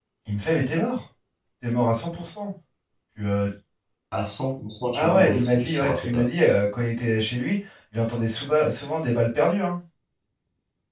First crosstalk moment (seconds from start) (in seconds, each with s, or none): 4.9 s